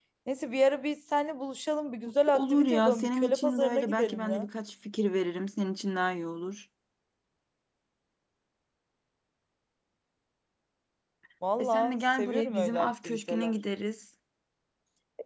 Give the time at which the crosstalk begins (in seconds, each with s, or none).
2.3 s